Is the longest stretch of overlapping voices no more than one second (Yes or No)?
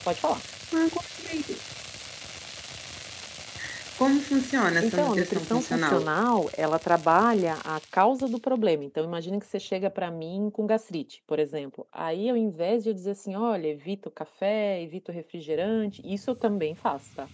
No